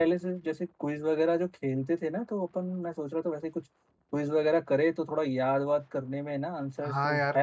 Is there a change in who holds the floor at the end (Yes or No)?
Yes